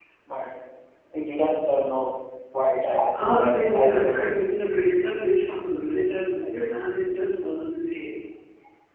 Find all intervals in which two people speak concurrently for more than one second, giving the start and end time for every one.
3.1-4.4

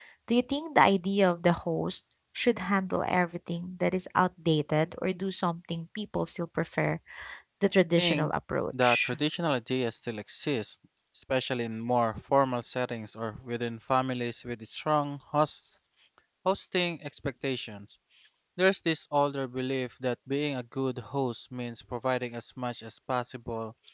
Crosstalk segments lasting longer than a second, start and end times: none

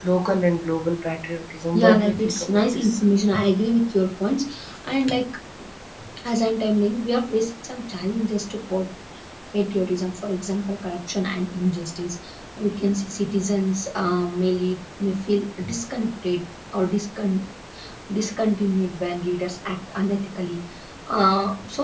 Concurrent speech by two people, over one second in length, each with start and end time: 1.7-3.0

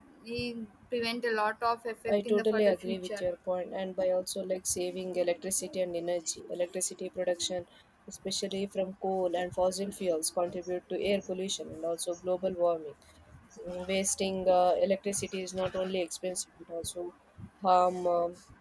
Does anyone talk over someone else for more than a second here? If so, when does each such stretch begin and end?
2.1-3.3

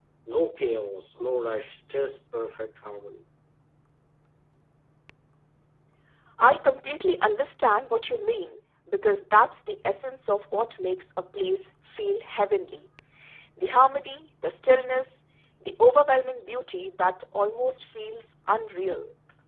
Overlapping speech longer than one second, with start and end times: none

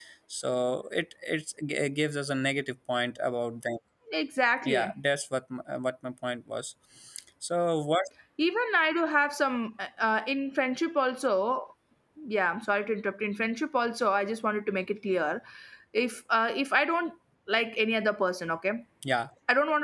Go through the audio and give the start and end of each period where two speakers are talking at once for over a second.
none

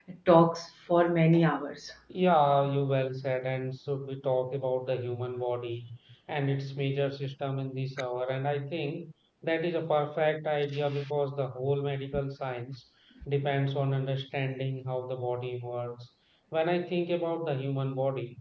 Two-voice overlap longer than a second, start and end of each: none

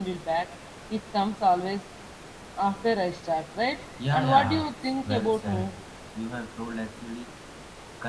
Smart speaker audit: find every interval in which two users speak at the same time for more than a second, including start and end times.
4.1-5.7

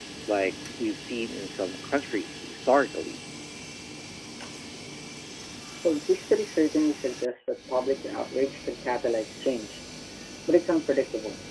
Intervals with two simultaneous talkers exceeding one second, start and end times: none

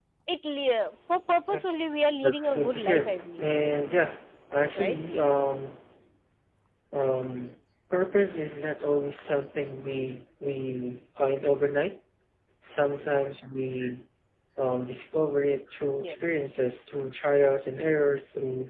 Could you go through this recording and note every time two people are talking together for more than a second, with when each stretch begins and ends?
2.2-3.4

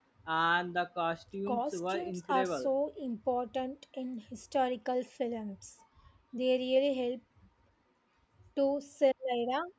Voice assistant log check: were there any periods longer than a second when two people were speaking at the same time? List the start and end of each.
1.5-2.7

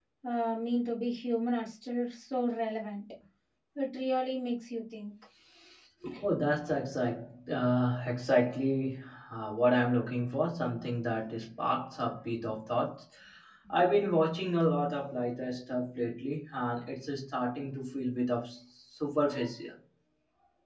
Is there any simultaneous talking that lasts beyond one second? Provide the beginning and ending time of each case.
none

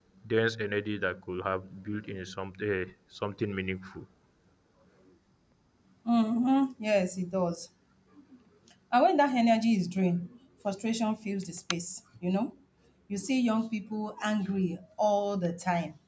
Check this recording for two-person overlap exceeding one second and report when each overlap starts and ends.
none

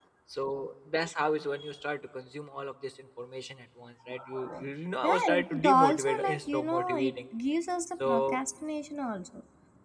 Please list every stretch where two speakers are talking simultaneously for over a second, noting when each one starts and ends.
5.0-7.2

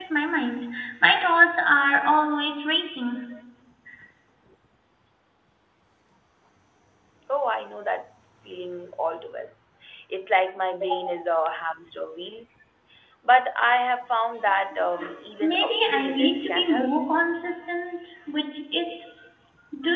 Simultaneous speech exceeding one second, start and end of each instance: 15.4-16.9

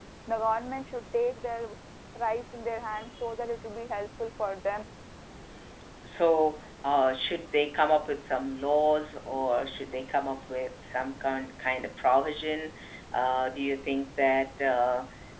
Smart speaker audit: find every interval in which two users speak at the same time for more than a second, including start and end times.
none

